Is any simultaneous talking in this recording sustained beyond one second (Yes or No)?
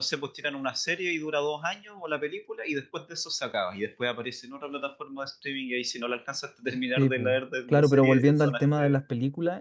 Yes